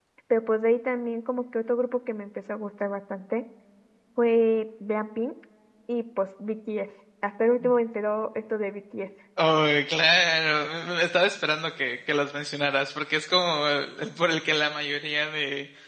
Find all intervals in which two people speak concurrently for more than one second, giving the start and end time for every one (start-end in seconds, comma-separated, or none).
none